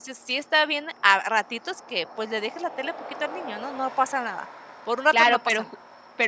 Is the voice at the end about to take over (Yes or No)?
Yes